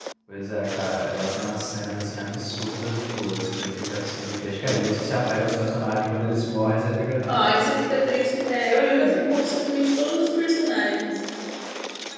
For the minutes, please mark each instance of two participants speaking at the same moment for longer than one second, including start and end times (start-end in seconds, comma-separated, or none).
none